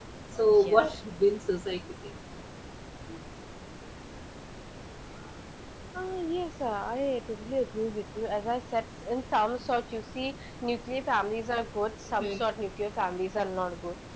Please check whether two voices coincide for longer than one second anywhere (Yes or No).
No